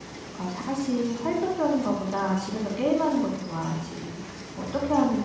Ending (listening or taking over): listening